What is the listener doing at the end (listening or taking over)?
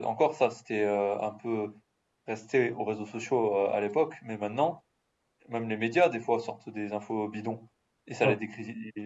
listening